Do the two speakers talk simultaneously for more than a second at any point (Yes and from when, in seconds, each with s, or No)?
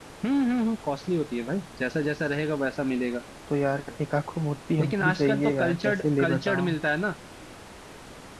Yes, from 4.8 s